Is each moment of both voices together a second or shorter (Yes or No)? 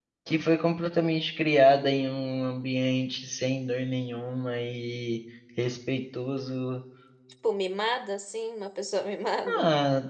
Yes